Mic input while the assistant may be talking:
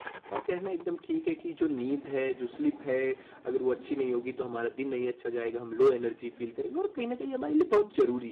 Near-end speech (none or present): present